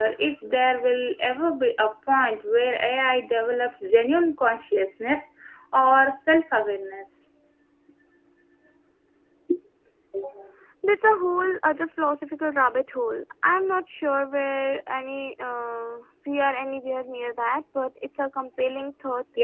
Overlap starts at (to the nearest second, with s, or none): none